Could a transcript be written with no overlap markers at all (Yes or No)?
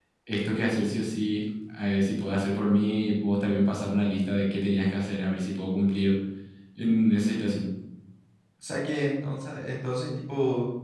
Yes